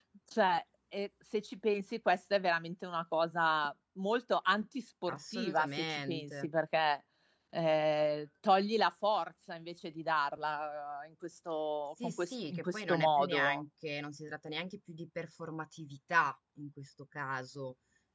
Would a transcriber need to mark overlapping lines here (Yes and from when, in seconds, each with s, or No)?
Yes, from 5.1 s